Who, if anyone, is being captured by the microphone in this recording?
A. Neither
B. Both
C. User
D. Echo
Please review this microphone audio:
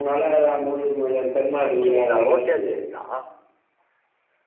B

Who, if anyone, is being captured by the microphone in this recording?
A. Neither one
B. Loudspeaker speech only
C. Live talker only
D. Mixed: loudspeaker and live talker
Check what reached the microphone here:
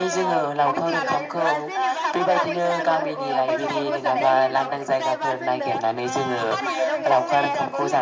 D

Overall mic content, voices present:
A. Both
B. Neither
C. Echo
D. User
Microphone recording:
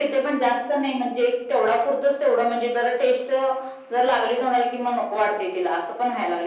C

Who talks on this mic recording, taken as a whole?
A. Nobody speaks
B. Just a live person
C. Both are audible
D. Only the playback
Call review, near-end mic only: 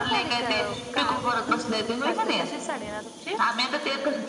C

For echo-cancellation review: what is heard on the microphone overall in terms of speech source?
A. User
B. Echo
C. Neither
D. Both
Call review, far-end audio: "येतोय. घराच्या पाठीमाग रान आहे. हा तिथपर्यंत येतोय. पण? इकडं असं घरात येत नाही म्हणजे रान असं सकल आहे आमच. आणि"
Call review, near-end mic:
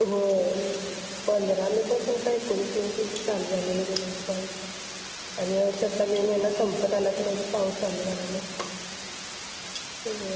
A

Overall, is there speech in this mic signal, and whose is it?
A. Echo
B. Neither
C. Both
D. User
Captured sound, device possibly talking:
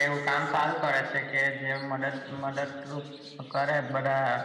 A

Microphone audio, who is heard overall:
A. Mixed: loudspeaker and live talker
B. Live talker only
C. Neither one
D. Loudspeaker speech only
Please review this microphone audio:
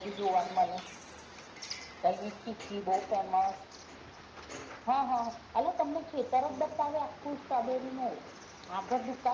D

